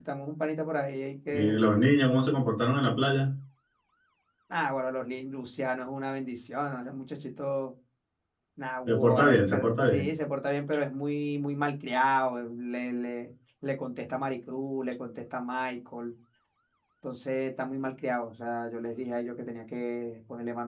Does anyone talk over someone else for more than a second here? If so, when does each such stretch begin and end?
8.9-10.1

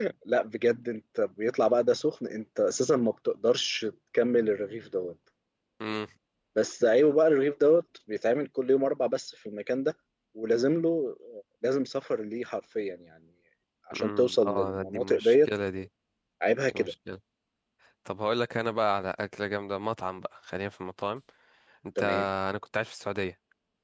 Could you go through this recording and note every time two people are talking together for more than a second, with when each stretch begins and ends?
13.9-15.5

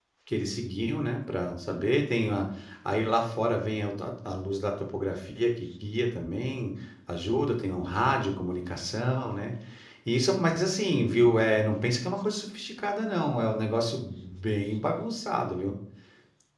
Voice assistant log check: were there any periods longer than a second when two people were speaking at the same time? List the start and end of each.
none

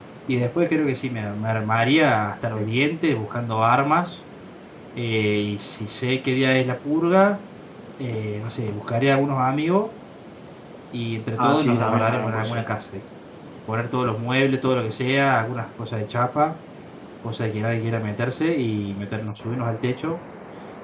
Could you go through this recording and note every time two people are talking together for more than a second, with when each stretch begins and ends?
11.4-12.6

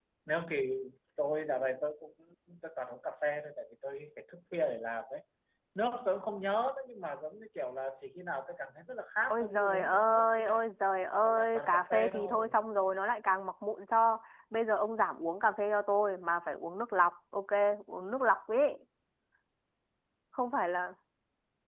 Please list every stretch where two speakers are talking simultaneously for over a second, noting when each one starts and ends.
9.3-10.6, 11.2-12.6

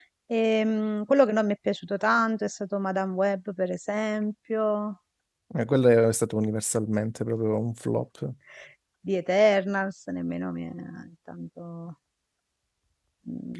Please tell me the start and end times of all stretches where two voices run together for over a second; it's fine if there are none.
none

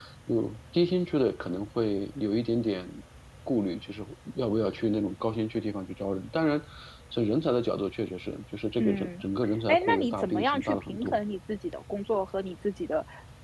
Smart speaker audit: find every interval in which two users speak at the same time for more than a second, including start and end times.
9.7-11.2

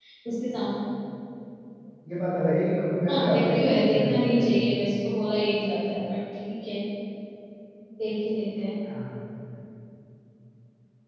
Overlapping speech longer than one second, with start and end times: 3.1-4.7

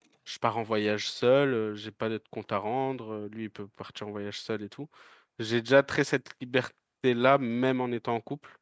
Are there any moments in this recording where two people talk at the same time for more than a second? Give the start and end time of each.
none

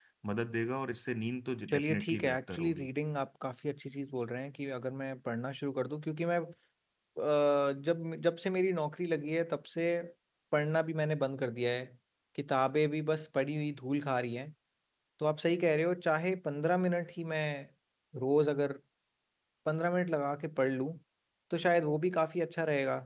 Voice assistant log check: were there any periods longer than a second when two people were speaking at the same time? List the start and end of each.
1.7-2.9

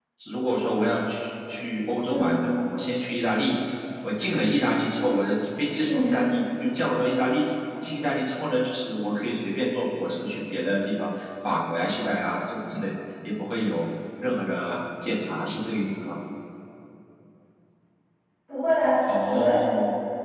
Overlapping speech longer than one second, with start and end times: none

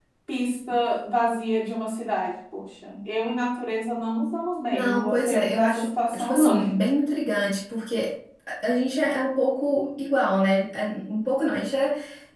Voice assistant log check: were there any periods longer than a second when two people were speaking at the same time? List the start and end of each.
4.7-6.6

